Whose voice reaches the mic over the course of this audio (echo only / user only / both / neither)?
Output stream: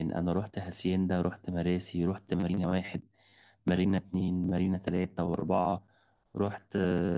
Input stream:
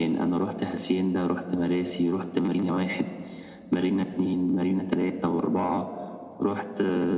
echo only